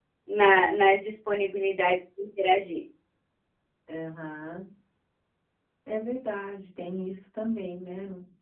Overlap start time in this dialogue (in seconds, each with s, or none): none